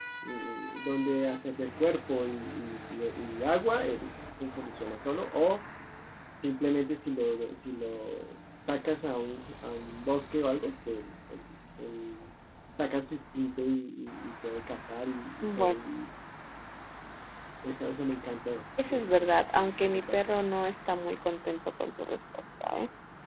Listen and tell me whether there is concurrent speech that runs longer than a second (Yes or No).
Yes